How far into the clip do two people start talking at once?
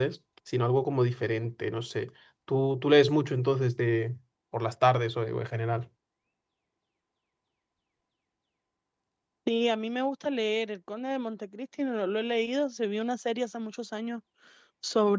none

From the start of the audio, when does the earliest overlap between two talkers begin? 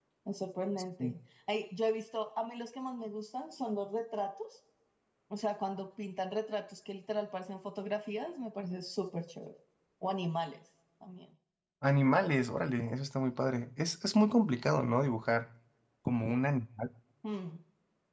none

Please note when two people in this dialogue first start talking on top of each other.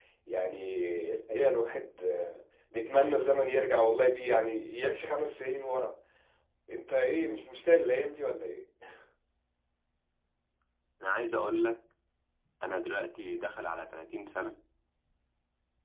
none

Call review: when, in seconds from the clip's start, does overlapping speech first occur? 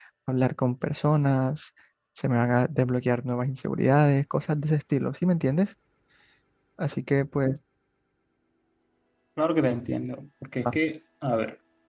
none

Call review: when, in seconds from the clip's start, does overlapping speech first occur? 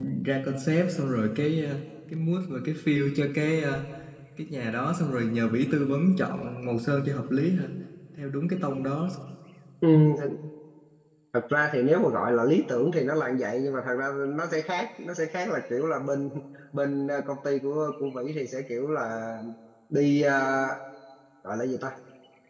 none

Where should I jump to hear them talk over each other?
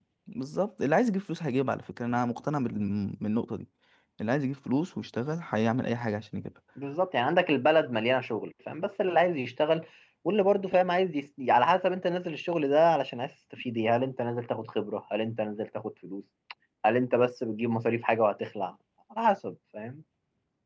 none

